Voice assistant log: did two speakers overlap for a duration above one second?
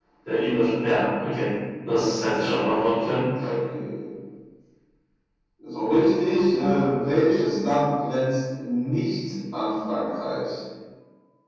No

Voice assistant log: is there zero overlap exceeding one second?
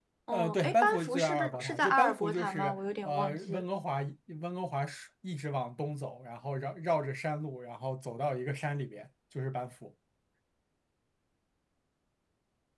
No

